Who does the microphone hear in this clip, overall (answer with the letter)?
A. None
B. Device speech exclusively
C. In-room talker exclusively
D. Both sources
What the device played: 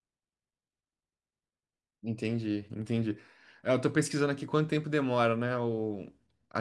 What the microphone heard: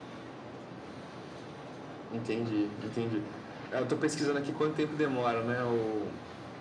B